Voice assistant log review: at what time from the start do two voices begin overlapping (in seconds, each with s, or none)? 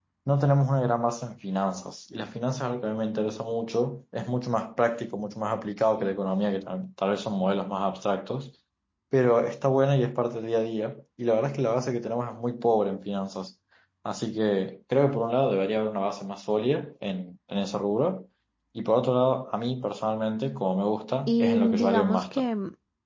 21.3 s